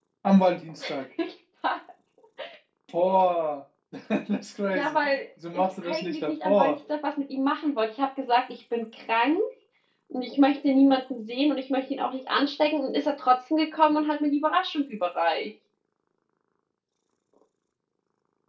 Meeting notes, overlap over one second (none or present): present